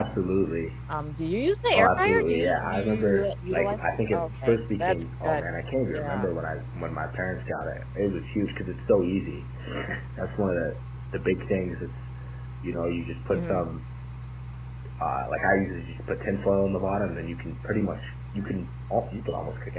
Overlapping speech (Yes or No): Yes